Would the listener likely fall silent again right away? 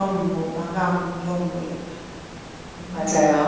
No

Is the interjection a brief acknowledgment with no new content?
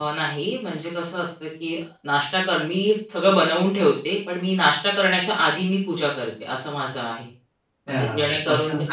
No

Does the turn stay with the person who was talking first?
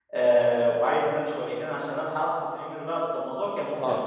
No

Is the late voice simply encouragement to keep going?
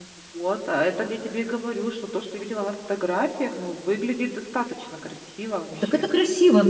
No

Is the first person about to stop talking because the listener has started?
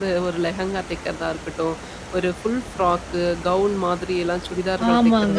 Yes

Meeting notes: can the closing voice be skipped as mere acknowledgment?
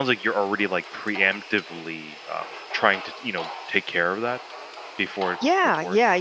No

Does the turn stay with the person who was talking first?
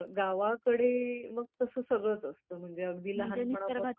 No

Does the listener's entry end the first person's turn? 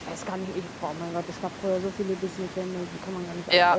Yes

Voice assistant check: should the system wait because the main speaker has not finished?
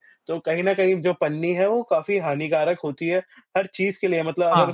Yes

